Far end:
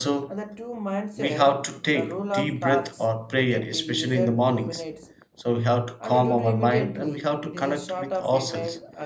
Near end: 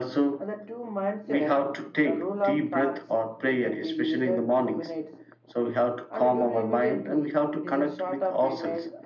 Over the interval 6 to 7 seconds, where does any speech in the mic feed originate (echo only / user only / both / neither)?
echo only